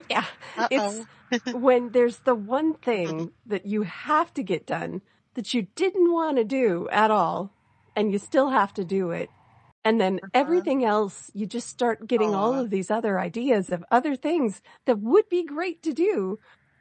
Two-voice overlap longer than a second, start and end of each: none

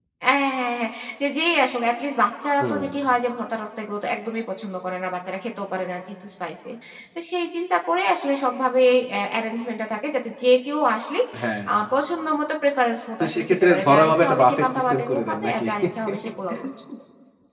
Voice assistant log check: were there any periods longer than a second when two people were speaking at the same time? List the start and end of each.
13.2-15.7

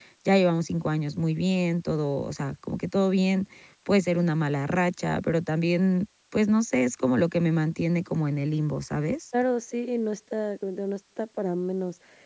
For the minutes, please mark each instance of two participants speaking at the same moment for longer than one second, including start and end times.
none

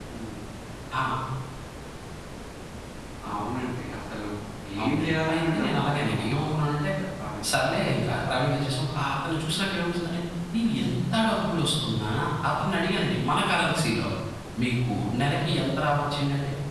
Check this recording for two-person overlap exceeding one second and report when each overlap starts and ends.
4.8-6.5

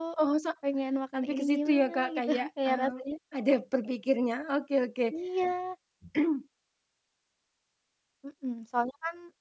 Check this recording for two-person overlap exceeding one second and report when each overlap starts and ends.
1.1-2.9

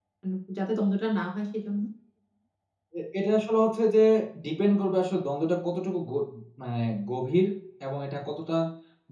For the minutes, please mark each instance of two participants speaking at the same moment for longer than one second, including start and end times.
none

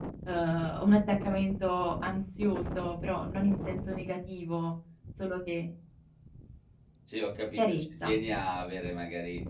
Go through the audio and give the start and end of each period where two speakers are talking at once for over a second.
none

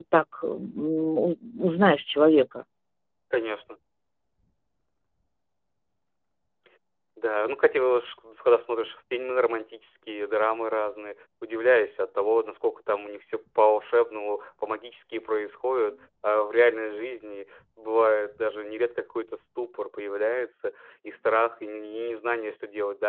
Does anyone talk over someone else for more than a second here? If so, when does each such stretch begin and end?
none

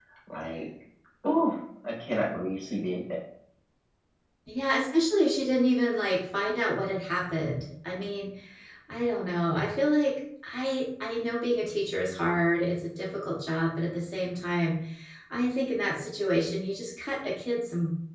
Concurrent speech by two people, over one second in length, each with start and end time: none

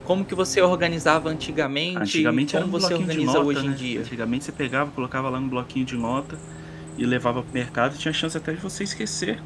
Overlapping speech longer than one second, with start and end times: 1.9-4.1

